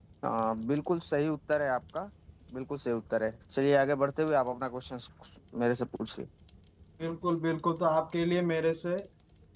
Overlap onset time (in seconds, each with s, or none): none